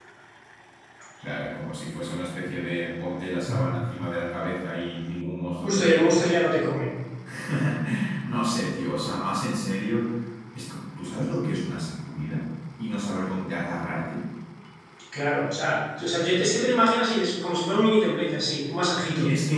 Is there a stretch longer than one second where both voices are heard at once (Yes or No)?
No